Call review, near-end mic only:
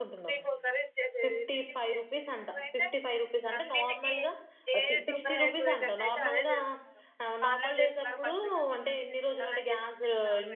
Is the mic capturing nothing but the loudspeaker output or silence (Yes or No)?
No